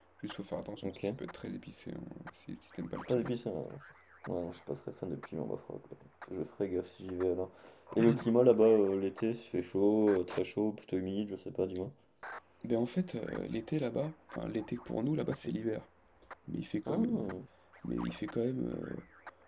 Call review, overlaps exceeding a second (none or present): none